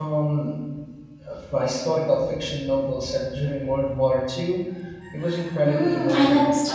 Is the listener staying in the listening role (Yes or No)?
No